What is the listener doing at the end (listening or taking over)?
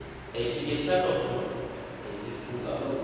taking over